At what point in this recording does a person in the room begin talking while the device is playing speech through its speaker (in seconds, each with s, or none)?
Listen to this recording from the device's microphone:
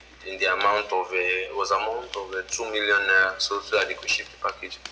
none